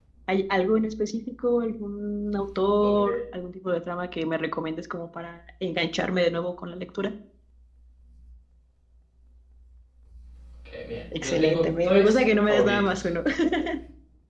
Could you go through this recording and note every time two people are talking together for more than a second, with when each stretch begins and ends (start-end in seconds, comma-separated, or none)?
11.1-13.1